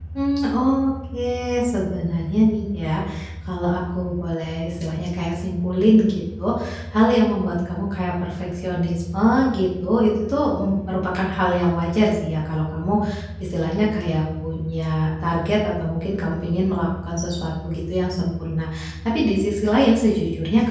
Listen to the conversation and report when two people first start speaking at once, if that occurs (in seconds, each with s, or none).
none